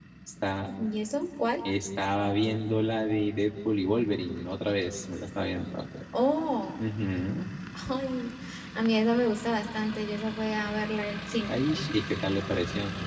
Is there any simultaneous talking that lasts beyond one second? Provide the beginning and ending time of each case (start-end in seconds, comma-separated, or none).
none